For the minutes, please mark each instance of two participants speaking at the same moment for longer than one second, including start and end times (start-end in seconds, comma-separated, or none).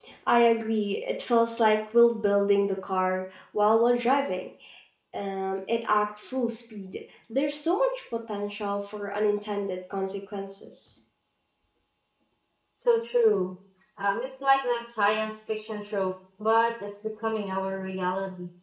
none